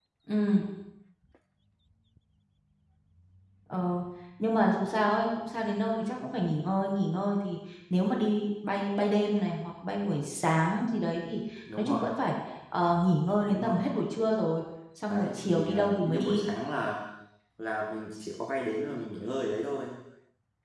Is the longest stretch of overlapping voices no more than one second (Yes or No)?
No